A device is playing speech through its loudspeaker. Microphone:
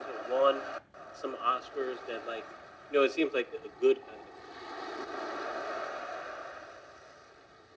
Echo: present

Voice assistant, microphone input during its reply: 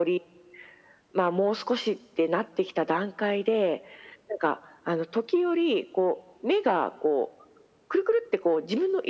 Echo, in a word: present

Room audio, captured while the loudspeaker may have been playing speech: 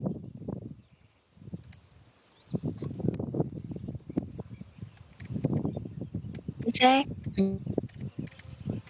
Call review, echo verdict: none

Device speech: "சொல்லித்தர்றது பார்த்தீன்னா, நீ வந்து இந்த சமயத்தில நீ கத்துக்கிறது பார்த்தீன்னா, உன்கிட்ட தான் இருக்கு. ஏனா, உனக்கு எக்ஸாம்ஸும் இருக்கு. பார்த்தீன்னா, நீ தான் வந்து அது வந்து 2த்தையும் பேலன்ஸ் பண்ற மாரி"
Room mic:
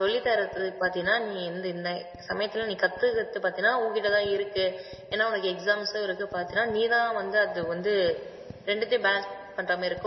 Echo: present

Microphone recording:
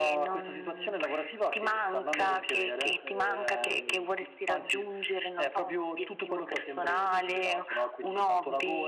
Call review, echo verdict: present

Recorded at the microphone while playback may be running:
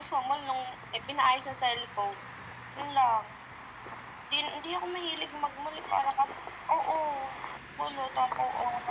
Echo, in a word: present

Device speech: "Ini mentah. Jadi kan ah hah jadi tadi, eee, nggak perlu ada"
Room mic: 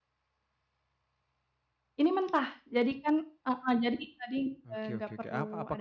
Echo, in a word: present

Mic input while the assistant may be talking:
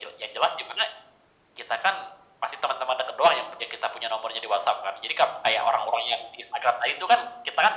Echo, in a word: present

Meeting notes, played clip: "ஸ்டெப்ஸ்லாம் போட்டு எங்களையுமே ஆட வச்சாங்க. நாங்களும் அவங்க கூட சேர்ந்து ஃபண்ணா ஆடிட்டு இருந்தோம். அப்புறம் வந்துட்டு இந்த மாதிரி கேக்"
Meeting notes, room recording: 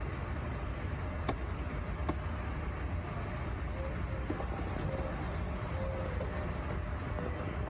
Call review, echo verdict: none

